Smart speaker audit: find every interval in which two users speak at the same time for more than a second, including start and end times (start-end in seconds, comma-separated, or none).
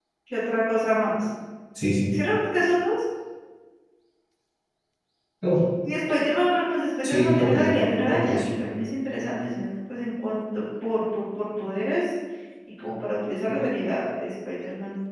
7.0-8.4